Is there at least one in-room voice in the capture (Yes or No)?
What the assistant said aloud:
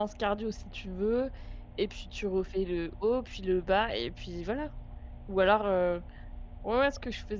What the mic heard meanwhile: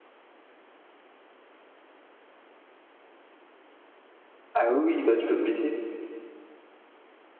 Yes